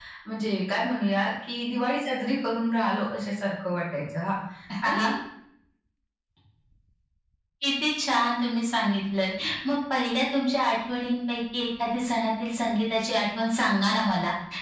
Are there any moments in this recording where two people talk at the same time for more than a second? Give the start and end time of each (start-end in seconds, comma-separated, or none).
none